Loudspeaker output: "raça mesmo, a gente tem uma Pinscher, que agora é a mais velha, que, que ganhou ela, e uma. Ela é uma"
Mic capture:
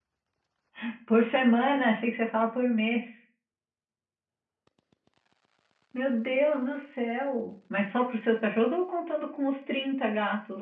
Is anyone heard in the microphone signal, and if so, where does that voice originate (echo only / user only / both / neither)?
user only